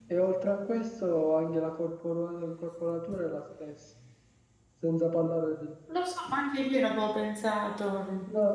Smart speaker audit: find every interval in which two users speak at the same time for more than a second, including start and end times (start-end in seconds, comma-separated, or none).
none